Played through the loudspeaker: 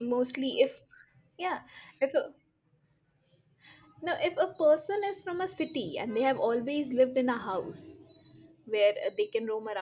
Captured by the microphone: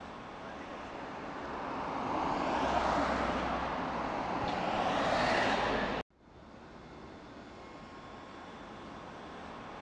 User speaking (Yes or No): No